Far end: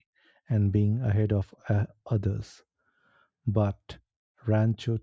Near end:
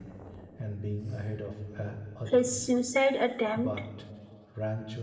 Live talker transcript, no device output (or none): His suicide attempt